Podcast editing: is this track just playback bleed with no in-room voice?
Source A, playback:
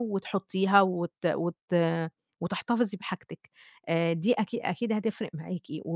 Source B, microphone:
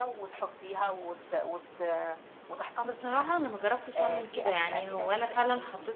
No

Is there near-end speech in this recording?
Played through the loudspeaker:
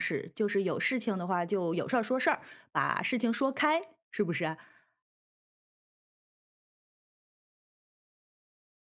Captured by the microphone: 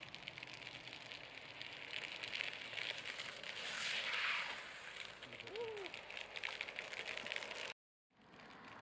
No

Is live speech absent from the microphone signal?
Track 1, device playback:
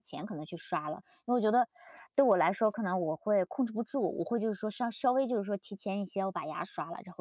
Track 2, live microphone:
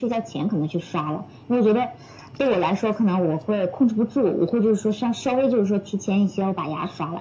Yes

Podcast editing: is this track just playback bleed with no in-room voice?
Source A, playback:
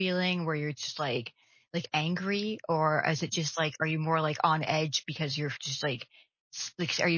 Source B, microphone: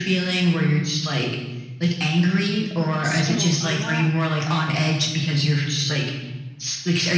No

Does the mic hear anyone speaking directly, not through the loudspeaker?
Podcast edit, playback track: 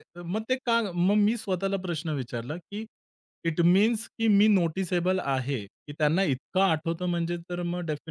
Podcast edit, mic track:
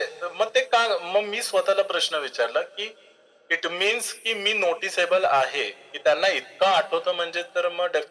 No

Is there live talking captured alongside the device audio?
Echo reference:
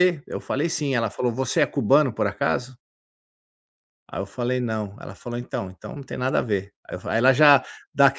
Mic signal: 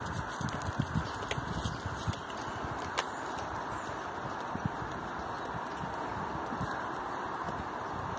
No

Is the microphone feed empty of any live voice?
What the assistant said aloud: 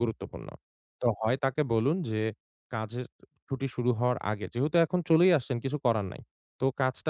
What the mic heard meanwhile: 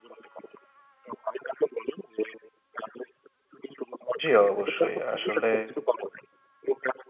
No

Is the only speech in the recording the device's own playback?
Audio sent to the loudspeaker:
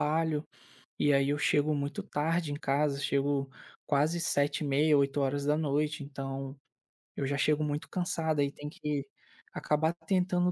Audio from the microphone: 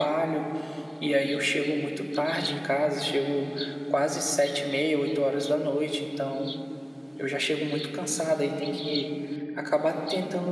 Yes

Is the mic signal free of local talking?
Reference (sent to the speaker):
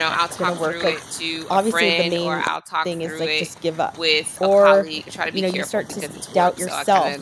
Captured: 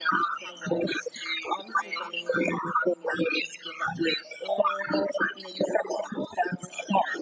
Yes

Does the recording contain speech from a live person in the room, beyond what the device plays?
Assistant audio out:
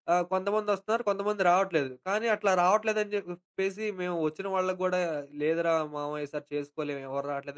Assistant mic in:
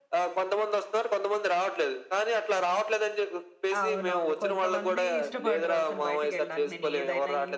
Yes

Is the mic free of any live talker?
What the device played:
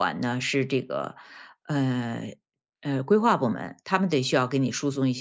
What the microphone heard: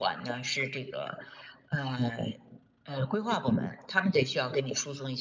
Yes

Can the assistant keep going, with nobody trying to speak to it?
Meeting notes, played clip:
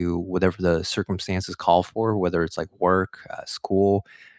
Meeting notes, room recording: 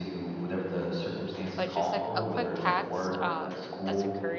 No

